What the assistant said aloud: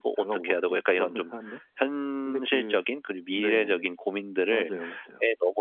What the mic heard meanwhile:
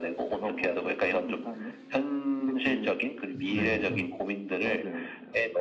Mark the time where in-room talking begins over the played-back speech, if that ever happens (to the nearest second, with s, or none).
3 s